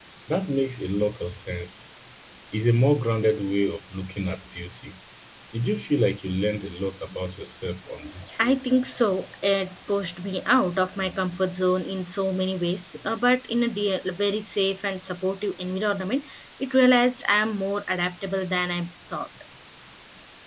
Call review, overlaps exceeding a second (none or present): none